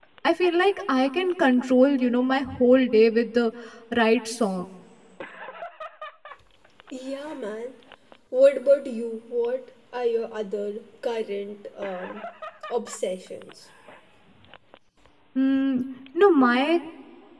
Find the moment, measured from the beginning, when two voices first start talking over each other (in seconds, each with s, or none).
none